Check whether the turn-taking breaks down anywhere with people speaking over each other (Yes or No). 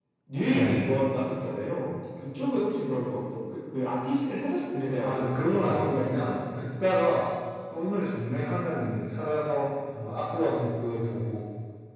Yes